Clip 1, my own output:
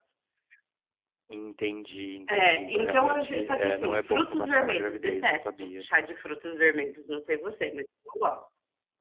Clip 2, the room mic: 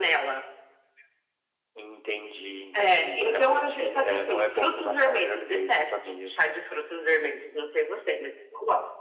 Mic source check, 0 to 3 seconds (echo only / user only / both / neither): echo only